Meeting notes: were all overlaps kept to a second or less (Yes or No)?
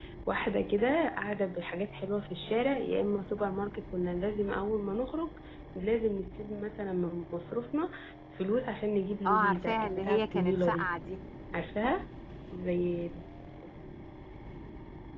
No